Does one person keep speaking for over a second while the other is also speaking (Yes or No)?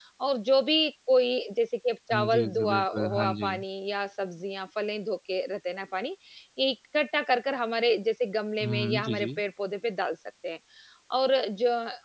Yes